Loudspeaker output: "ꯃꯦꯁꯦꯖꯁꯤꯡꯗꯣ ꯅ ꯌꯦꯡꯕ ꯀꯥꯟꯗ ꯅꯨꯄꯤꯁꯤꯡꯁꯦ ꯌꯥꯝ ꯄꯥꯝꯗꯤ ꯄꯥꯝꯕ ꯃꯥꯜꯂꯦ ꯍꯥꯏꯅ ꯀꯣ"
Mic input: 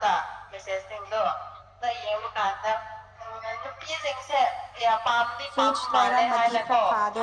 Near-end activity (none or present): present